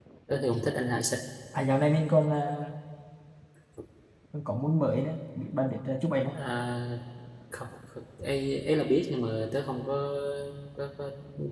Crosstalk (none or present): none